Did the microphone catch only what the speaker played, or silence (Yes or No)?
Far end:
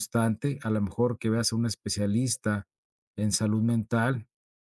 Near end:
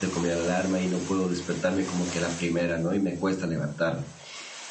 No